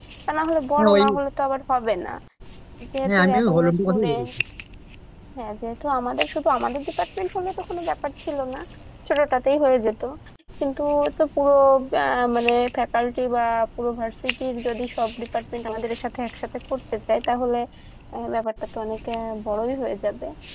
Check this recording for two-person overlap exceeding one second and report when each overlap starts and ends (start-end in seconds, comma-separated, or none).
3.0-4.3